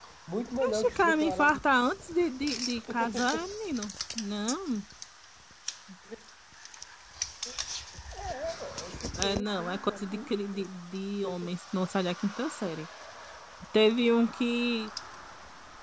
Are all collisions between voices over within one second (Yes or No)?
No